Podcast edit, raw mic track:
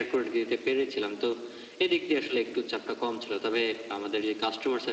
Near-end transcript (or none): none